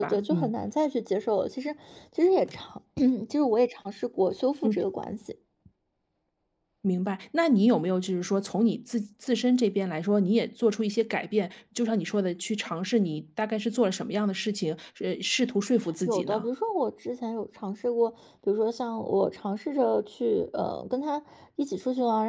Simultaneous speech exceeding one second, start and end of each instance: none

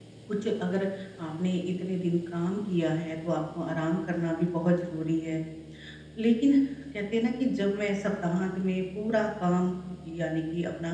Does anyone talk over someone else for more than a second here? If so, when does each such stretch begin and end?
none

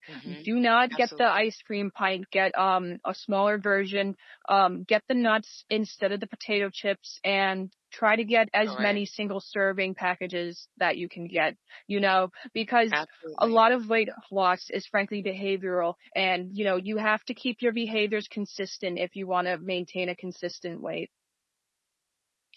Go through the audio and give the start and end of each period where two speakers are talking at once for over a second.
none

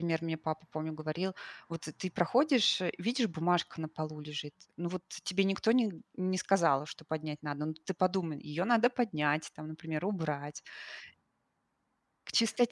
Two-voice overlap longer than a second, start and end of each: none

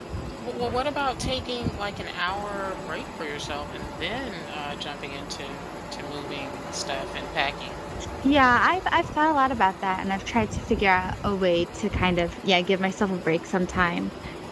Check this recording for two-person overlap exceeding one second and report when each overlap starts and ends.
none

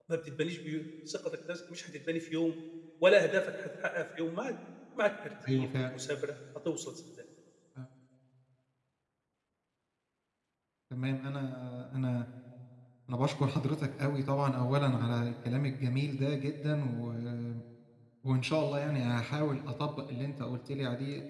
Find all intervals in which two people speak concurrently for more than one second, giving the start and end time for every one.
none

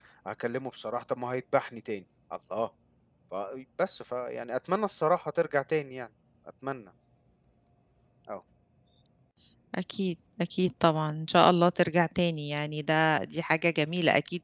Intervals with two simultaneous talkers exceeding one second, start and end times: none

